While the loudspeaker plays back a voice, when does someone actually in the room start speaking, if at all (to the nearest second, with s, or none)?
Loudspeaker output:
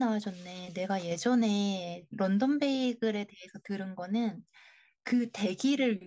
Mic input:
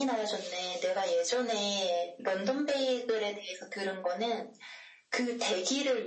none